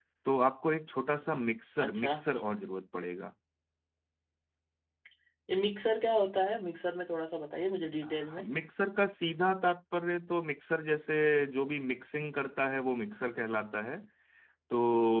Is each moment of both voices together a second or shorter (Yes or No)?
Yes